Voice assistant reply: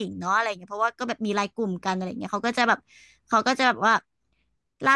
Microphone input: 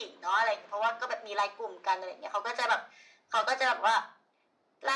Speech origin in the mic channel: echo only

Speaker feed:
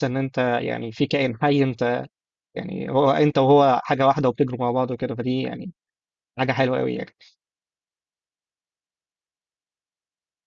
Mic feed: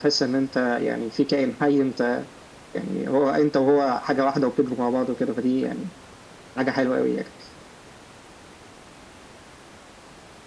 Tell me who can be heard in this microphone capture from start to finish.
echo only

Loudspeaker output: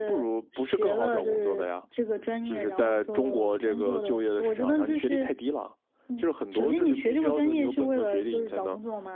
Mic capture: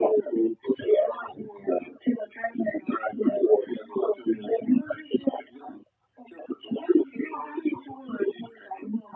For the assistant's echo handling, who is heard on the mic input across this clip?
echo only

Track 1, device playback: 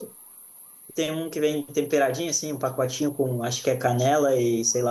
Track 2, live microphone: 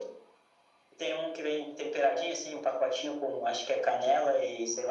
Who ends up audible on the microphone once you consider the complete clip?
echo only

